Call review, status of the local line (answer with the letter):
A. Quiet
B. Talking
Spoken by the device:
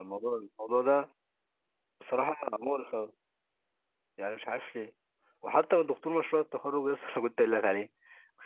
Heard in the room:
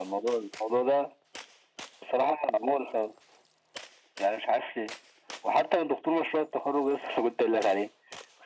A